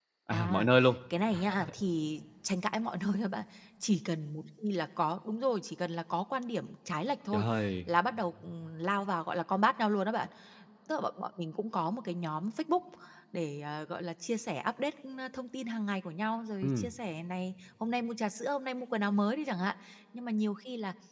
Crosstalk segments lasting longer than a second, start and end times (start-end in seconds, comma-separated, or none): none